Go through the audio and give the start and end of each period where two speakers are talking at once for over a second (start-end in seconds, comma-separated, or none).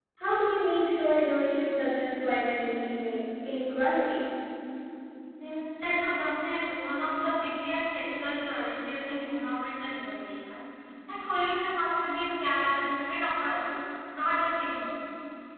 none